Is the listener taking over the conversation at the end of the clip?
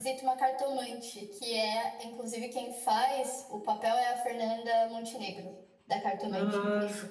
Yes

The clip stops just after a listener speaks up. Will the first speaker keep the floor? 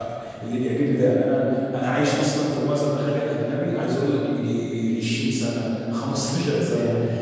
Yes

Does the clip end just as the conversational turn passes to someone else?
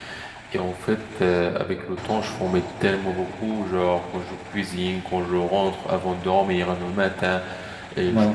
No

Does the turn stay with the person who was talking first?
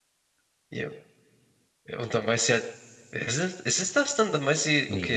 No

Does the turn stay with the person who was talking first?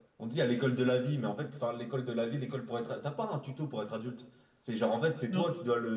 Yes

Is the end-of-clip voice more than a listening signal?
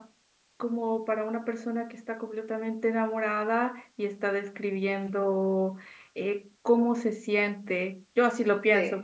No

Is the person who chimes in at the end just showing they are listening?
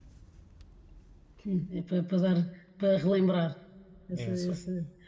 Yes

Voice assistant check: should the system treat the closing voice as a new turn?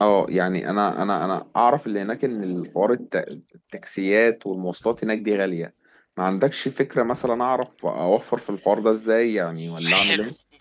Yes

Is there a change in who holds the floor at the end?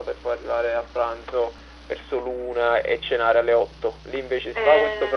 No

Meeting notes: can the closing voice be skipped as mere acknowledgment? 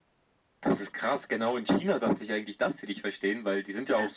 Yes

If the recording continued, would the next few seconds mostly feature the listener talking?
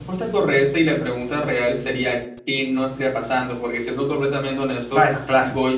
No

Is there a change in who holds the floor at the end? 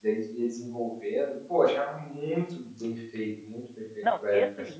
Yes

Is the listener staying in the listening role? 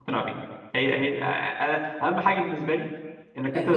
No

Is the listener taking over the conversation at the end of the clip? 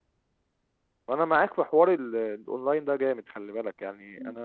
Yes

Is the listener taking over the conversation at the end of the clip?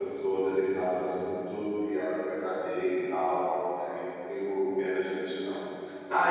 Yes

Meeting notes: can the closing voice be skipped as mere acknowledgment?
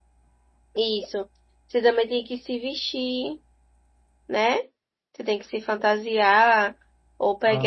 Yes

